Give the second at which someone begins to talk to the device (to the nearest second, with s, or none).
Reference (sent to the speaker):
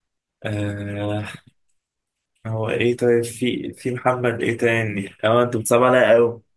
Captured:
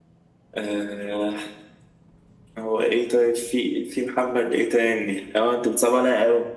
none